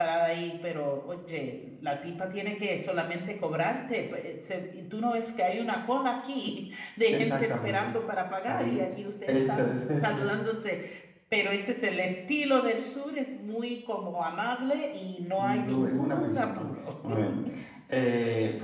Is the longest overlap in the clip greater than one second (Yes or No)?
Yes